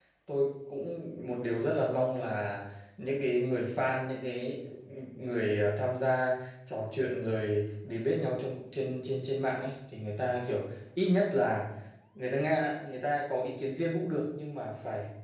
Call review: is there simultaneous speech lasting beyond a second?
No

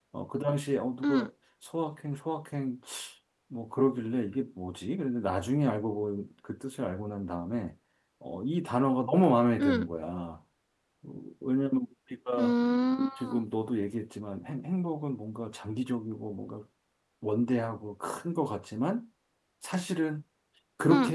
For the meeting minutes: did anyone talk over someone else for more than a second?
No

